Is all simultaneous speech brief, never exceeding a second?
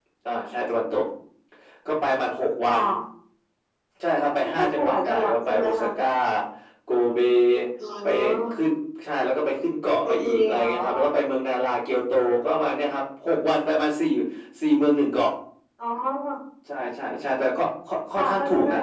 No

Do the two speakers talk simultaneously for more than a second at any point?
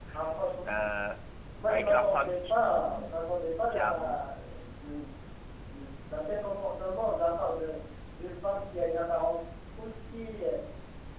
Yes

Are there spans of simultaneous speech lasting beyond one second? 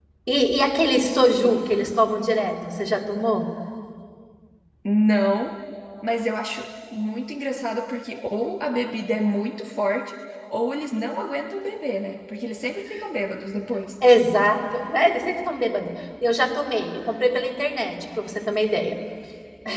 No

